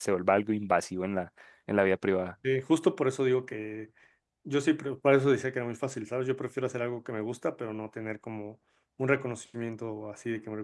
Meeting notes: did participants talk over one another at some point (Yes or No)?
No